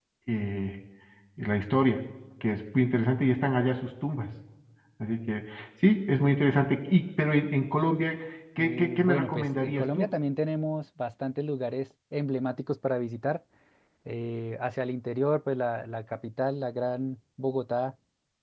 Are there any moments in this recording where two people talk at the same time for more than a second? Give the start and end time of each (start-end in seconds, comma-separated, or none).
8.6-10.1